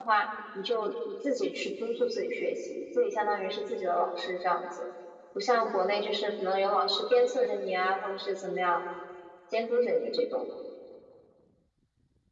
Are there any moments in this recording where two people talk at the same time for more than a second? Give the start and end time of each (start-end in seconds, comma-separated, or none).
none